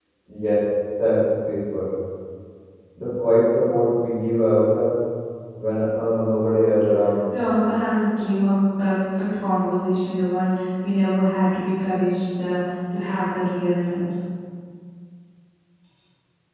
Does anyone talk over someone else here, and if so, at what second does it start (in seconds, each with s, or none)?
none